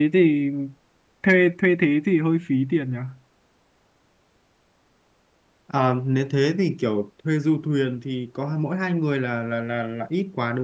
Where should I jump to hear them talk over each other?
none

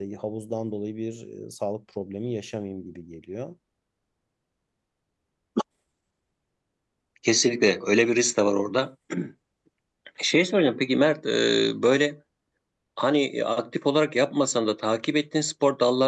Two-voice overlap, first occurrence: none

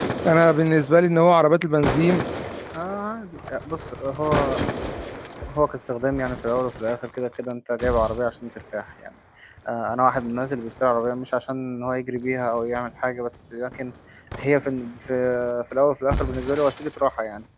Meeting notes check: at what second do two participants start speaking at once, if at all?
none

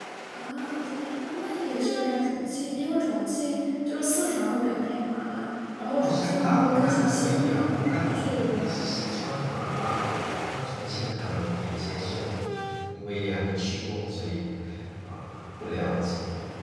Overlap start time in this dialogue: 6.0 s

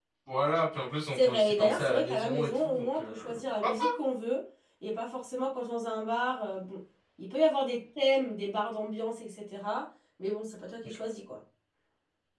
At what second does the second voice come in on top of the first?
1.1 s

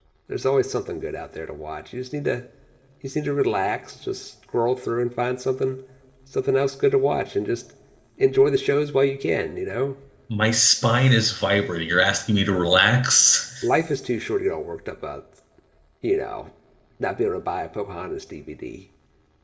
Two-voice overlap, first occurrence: none

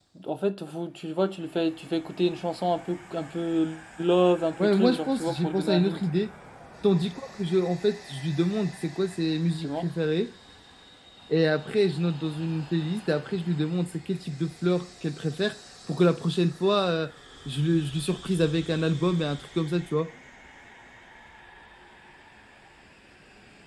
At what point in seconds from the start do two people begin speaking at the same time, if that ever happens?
4.6 s

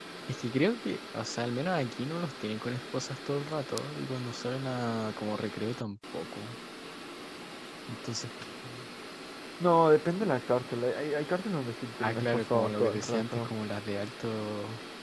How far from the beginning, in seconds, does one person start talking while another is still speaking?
12.0 s

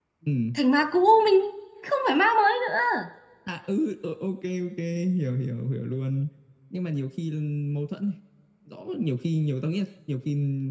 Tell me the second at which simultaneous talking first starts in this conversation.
none

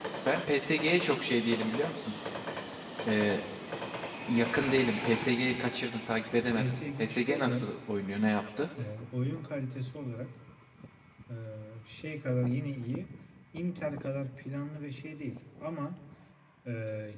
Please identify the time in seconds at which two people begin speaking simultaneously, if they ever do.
6.3 s

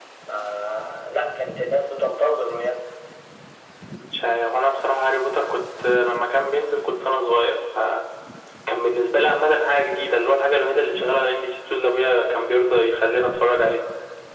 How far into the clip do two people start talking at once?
none

